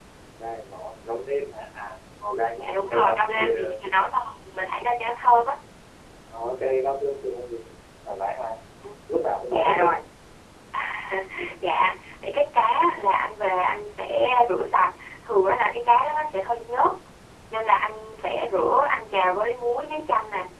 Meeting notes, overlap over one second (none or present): present